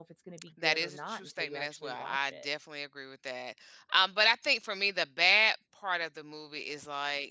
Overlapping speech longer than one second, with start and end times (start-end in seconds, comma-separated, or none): 0.6-2.5